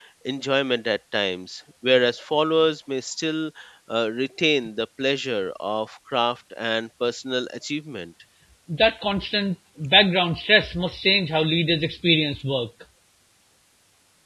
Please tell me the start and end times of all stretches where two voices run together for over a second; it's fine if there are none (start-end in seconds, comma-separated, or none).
none